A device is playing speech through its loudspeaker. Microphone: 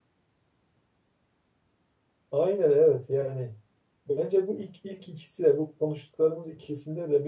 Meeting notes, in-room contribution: present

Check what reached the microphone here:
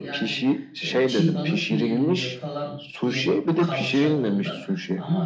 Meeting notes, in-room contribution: present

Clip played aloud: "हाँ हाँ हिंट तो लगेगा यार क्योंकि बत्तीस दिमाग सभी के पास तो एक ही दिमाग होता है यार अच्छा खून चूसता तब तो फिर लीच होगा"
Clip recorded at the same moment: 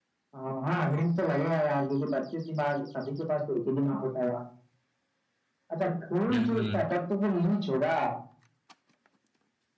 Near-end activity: present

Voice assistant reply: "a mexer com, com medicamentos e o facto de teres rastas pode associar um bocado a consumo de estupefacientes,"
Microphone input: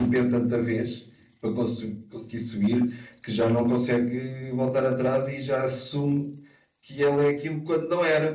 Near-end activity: present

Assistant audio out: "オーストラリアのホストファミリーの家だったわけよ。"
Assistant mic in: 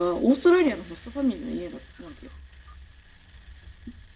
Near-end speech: none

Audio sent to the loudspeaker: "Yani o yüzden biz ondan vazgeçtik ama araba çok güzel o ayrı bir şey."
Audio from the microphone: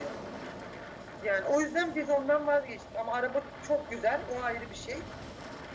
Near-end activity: none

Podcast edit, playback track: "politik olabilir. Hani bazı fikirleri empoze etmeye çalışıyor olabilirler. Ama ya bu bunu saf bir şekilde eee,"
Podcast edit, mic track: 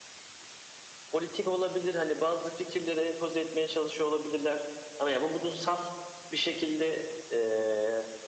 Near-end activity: none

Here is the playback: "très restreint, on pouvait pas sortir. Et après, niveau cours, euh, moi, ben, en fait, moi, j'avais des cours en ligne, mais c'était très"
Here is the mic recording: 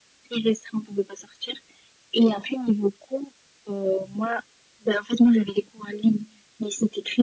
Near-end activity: none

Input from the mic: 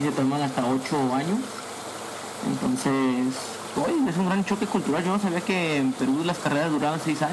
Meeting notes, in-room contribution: none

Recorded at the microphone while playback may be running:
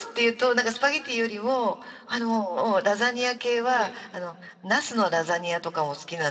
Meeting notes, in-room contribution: present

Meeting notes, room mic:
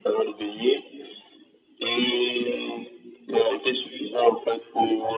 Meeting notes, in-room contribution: none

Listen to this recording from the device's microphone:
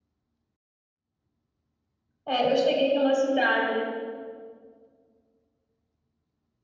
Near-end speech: present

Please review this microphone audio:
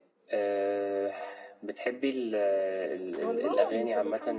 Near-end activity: present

